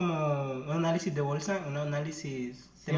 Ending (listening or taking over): taking over